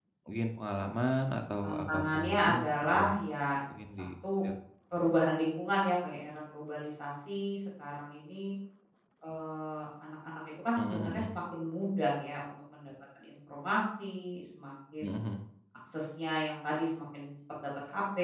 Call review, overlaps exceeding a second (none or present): present